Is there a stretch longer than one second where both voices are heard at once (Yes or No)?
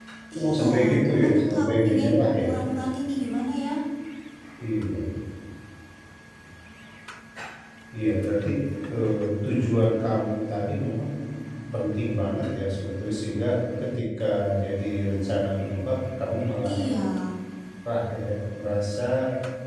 Yes